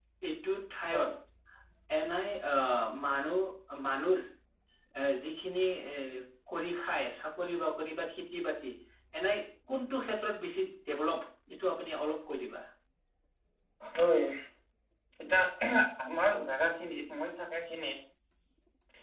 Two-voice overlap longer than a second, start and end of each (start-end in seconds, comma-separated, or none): none